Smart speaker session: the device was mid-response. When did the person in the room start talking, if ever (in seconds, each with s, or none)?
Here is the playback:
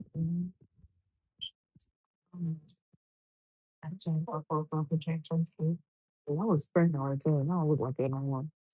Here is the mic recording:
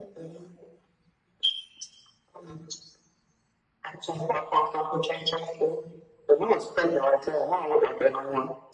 none